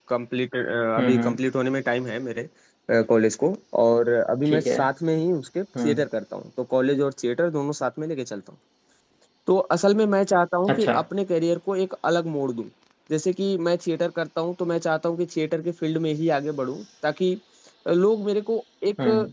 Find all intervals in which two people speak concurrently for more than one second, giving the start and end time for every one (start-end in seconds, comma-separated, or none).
none